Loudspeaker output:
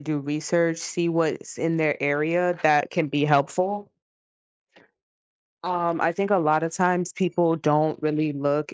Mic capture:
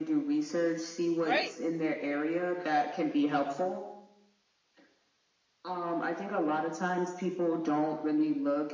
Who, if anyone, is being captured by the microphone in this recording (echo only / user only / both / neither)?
both